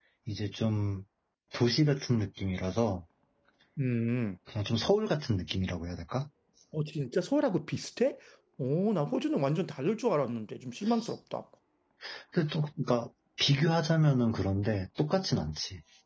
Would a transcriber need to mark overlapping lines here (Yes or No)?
No